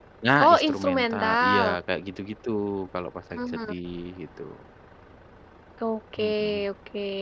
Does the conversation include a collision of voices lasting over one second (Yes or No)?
Yes